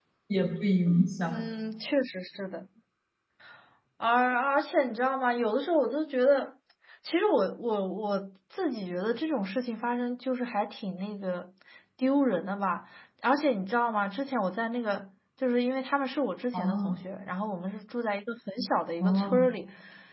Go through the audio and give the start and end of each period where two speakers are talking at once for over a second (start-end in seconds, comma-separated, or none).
none